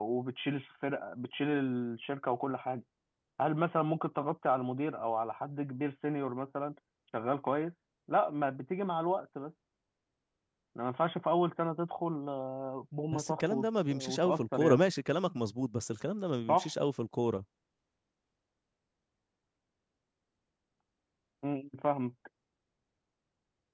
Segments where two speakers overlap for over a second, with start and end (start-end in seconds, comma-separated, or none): 13.1-14.8